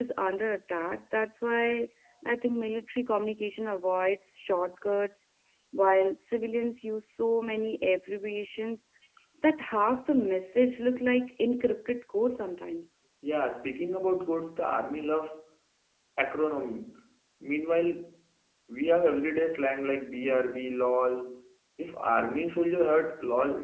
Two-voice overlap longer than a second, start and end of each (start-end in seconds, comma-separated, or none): none